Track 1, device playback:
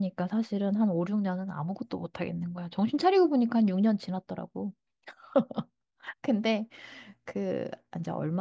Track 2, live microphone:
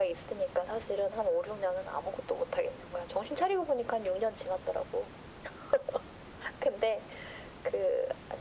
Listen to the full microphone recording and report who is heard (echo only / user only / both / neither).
echo only